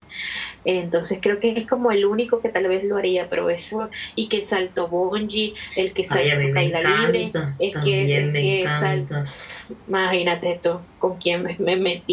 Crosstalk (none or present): present